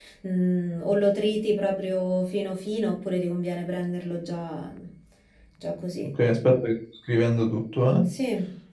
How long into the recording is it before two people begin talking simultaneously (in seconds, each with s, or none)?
none